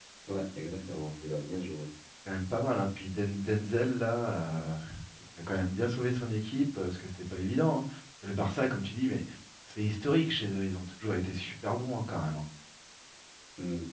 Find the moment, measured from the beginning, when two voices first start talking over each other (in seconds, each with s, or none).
none